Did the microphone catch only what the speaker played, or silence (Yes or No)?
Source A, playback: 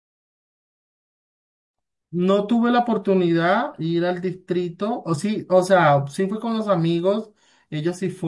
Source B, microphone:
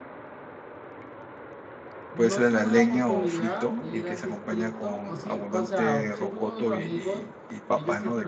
No